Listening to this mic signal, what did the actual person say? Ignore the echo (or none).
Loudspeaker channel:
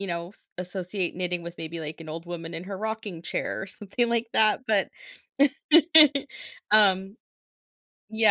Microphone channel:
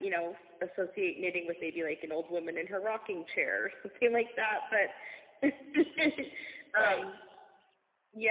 Right.